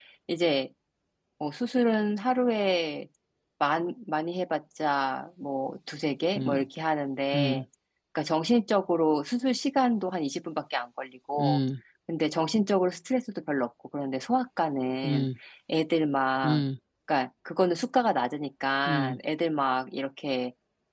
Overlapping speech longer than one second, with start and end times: none

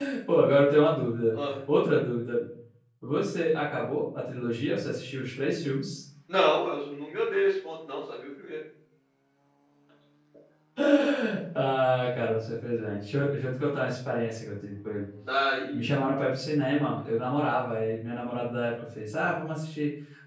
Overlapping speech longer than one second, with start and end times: none

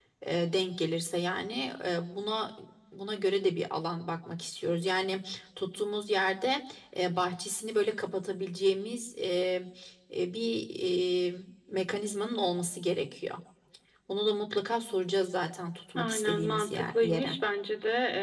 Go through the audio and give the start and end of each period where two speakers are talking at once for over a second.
15.9-17.4

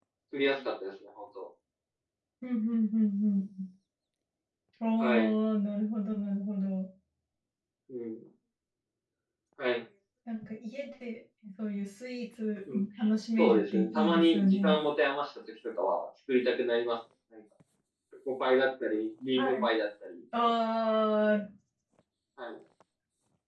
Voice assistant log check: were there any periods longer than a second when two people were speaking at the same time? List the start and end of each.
13.4-14.8

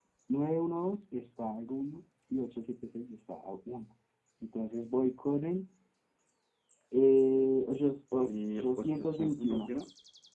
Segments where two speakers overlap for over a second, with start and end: 8.2-9.7

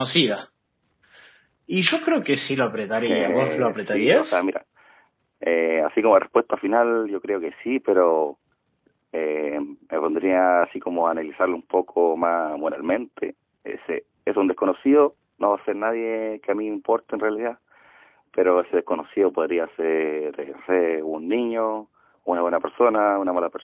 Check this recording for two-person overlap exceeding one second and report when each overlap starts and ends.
3.1-4.4

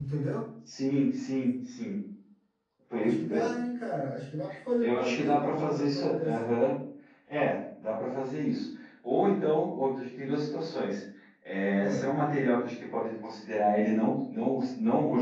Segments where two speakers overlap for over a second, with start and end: 4.8-6.4

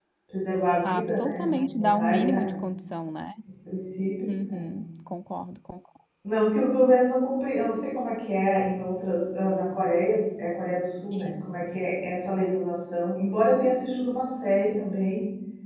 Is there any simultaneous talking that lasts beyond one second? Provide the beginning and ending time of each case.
0.8-2.5

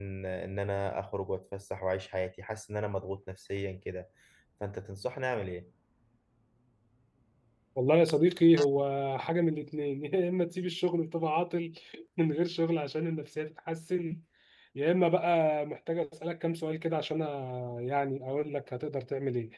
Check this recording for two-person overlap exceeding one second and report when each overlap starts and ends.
none

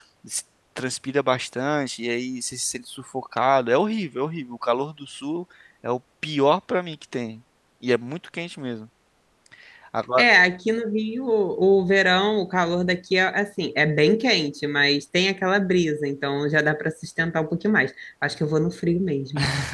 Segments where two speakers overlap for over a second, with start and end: none

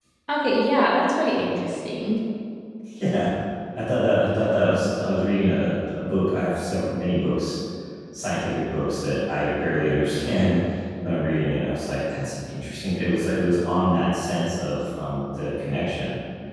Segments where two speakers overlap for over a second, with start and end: none

